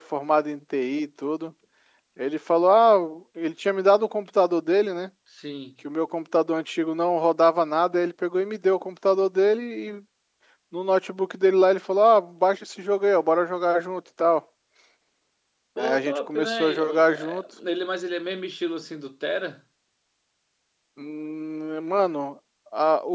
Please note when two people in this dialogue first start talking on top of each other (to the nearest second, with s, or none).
16 s